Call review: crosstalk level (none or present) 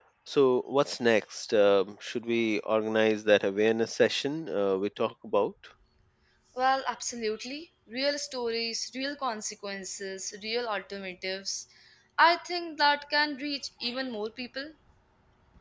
none